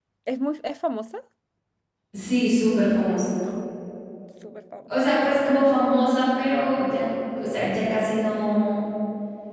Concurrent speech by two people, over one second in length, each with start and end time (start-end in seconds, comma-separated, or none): none